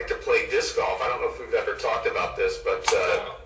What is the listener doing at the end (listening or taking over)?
listening